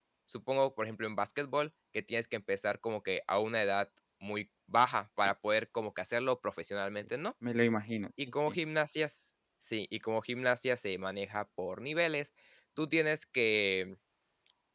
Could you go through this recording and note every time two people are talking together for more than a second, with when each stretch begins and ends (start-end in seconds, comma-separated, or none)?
none